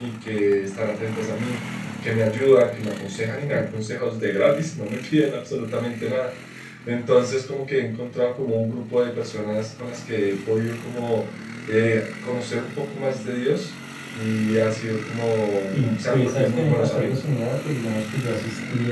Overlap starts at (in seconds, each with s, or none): 15.7 s